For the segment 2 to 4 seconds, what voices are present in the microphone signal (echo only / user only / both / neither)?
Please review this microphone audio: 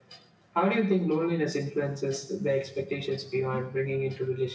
echo only